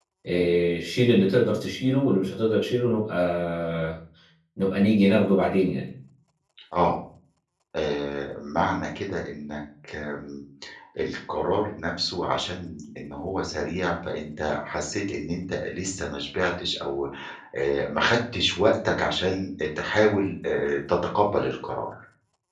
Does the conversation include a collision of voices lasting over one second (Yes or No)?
No